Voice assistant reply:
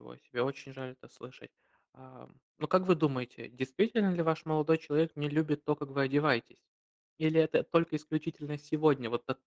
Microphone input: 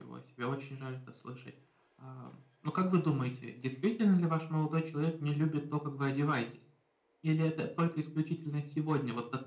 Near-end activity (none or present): none